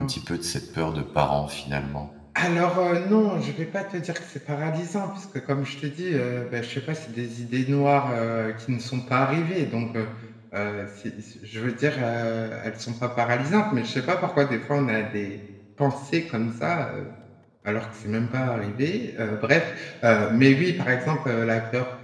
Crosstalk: none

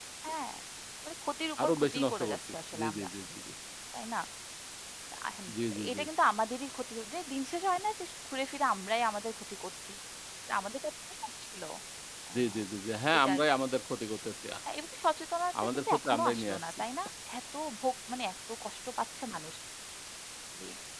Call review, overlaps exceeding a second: present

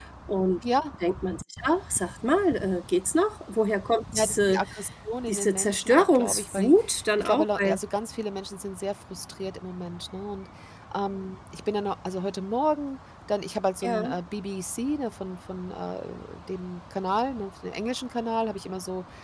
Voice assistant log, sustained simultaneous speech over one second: present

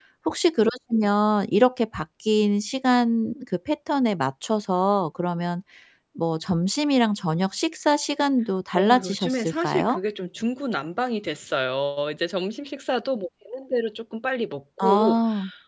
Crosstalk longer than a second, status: present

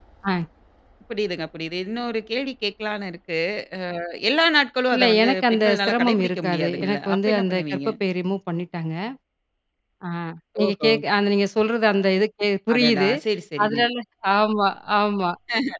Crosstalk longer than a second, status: present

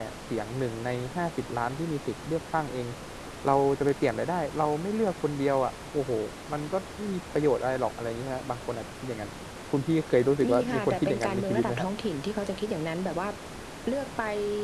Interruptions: present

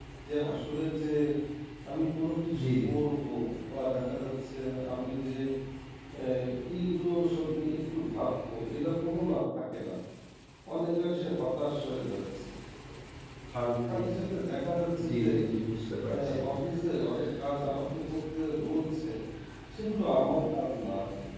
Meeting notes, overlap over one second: none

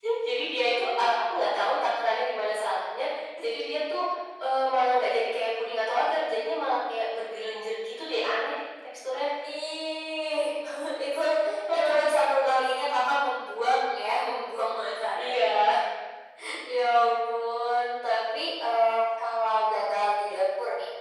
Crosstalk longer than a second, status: none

